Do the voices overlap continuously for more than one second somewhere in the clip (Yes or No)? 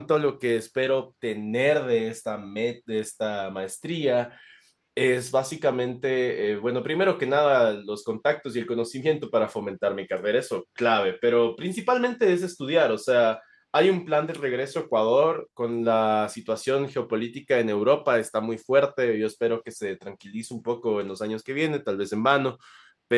No